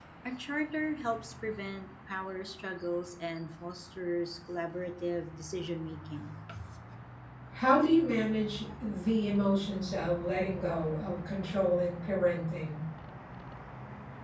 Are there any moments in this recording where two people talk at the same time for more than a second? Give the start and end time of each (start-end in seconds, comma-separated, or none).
none